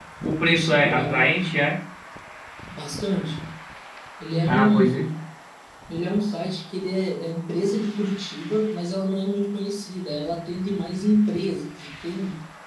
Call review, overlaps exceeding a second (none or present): present